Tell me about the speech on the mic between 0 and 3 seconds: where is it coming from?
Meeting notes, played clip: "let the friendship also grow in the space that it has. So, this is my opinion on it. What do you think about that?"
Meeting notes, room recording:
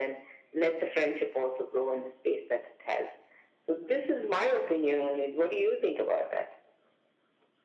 echo only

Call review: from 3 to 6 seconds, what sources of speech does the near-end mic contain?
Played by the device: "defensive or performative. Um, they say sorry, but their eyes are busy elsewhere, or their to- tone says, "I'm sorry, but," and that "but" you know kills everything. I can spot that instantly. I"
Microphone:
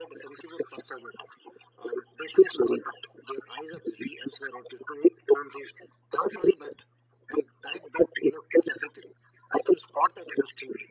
echo only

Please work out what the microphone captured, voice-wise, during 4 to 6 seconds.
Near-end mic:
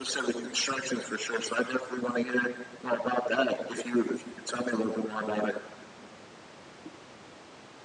echo only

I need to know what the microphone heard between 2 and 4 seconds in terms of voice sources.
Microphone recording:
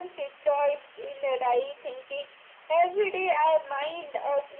echo only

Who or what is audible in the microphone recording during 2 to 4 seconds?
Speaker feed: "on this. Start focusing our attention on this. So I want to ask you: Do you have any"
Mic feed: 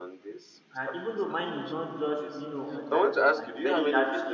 both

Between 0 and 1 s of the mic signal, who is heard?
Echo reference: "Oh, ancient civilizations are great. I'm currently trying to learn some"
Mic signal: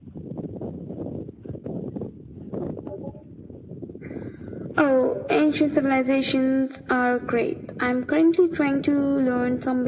neither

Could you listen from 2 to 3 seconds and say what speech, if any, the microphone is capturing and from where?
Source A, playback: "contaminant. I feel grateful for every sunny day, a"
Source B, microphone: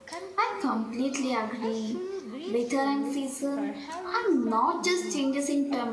both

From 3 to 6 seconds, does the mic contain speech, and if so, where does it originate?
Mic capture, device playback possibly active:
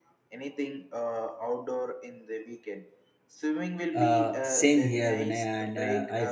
both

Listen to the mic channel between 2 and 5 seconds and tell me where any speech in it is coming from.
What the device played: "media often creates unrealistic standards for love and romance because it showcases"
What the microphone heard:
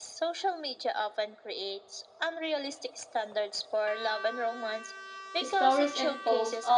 echo only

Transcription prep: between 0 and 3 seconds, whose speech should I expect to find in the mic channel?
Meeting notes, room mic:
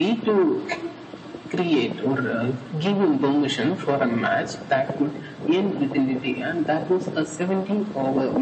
echo only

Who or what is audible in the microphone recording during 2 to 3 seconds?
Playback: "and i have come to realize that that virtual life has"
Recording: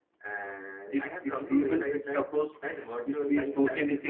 both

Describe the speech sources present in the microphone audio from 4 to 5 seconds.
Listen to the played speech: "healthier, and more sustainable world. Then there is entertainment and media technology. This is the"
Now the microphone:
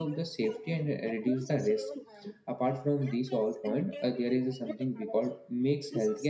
both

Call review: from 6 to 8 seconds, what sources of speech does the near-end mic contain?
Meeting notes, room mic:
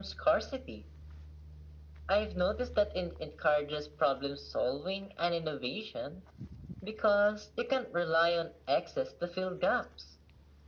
echo only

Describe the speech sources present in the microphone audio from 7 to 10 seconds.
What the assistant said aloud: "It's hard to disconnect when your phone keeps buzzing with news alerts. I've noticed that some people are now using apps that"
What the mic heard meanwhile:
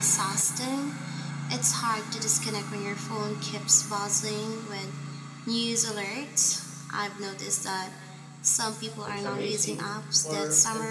both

